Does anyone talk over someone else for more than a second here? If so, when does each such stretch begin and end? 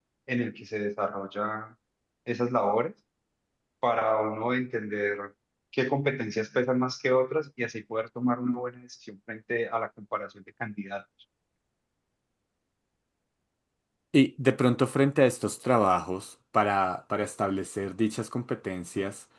none

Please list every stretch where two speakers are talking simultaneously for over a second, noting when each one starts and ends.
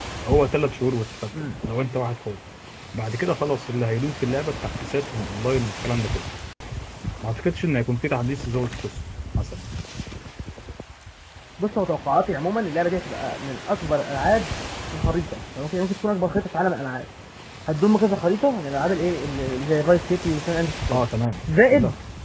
none

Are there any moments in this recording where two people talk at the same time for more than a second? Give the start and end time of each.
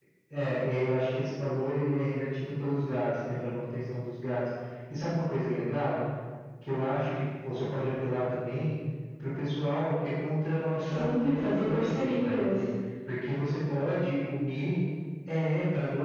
10.8-12.5

